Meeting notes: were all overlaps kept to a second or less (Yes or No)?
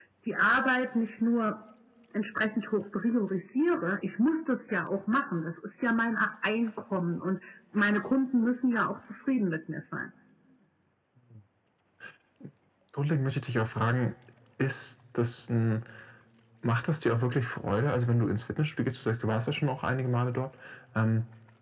Yes